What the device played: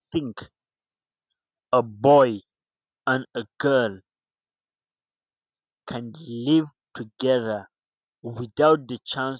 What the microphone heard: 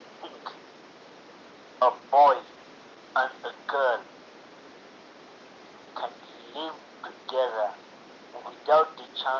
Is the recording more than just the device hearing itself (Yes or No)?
No